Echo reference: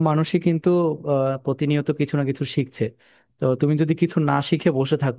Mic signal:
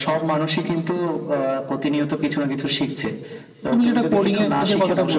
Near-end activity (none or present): present